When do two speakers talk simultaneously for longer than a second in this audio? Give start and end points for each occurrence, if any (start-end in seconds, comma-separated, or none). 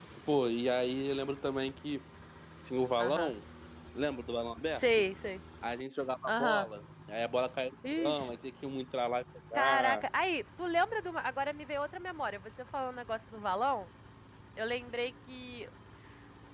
none